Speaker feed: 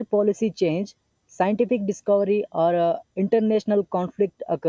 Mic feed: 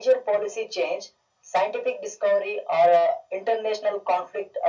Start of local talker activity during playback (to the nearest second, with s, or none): none